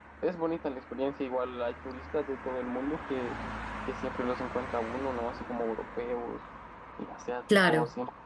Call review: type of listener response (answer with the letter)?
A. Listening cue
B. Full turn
A